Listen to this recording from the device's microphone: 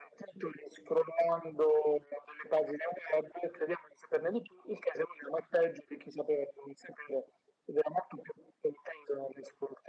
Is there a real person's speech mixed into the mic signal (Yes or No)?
No